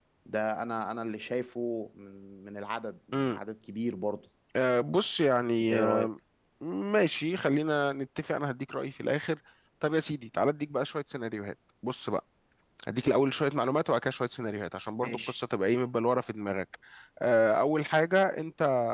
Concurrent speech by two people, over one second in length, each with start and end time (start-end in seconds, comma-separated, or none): none